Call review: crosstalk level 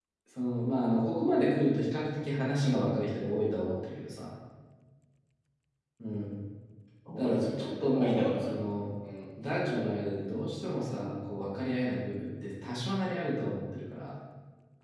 present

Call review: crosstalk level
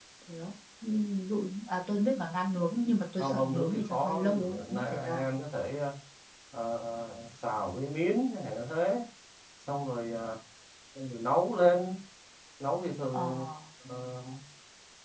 present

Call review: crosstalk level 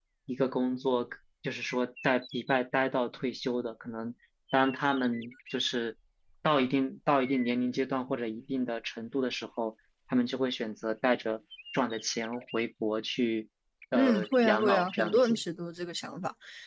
present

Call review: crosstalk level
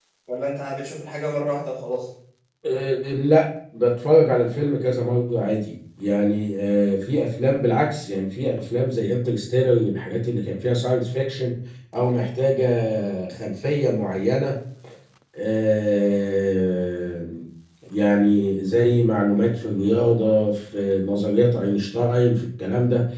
none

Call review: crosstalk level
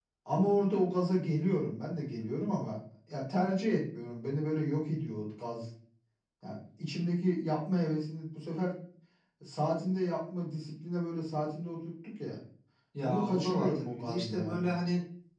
present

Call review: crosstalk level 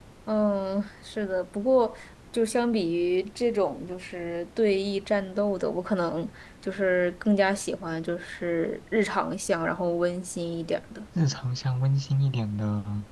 none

